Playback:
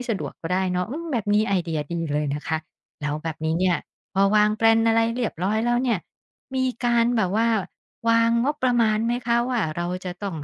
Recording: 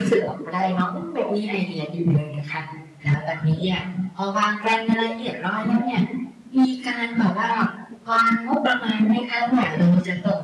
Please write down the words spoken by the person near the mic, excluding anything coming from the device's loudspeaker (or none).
none